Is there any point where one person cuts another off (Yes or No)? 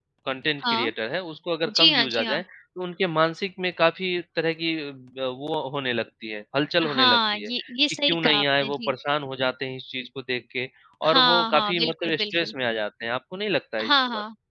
Yes